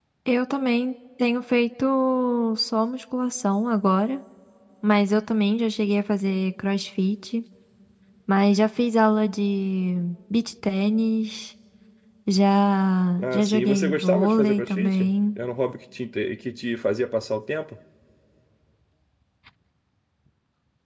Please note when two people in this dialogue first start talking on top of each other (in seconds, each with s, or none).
13.2 s